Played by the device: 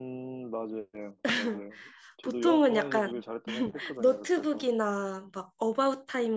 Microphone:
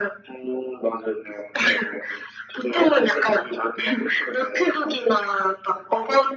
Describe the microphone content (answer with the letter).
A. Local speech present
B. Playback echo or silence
B